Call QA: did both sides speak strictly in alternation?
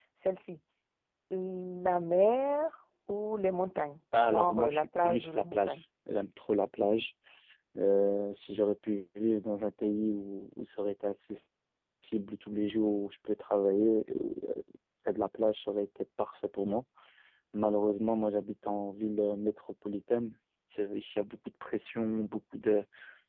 No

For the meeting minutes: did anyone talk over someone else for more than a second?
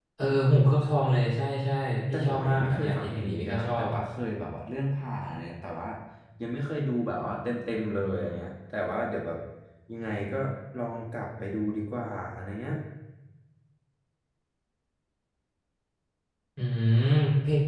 Yes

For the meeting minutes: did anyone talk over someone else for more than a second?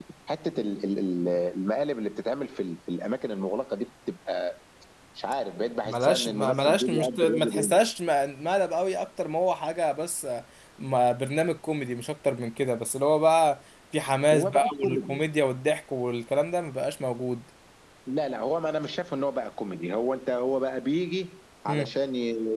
Yes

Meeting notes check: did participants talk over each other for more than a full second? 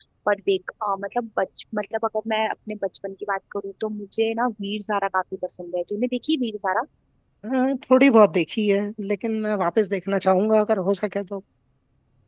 No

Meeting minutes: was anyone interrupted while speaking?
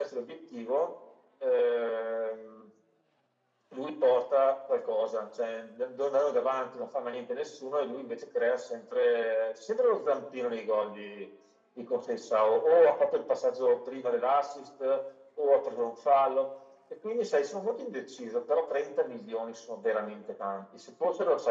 No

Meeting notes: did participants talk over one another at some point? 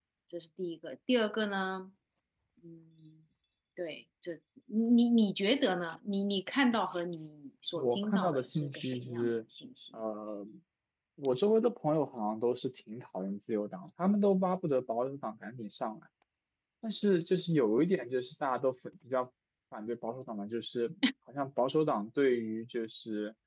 Yes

